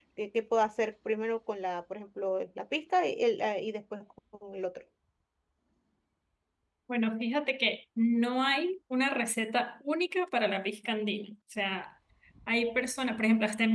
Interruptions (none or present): none